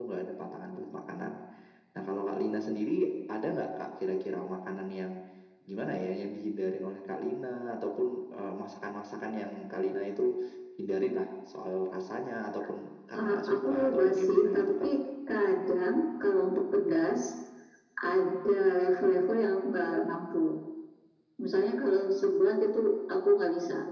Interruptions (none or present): present